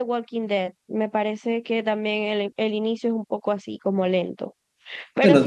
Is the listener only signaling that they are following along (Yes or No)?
No